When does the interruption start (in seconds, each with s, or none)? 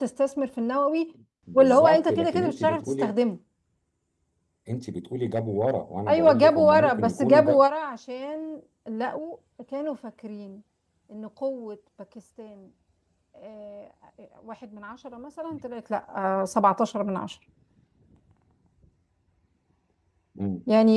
1.5 s